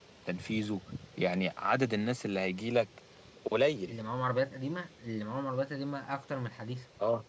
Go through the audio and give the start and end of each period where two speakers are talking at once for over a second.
none

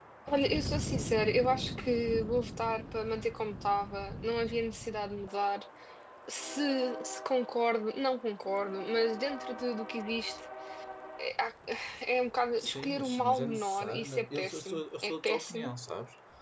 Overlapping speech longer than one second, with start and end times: 12.6-15.7

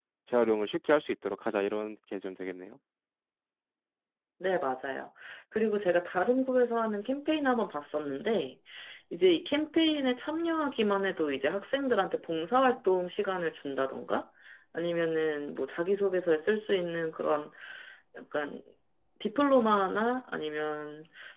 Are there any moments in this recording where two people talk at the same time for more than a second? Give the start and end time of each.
none

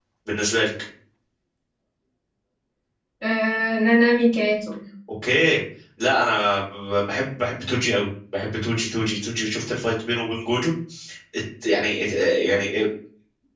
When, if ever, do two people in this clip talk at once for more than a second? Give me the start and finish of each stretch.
none

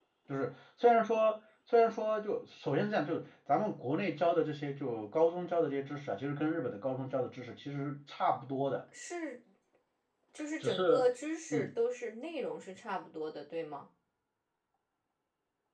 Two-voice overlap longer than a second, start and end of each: none

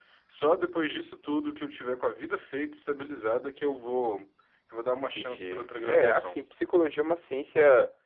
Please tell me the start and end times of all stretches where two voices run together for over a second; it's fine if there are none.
5.1-6.4

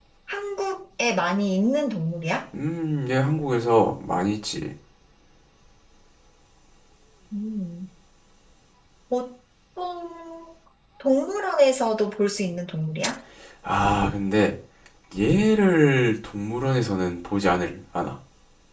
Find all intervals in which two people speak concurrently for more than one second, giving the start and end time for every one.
none

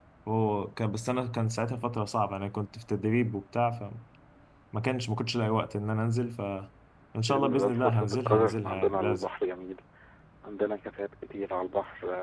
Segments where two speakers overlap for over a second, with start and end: 7.2-9.2

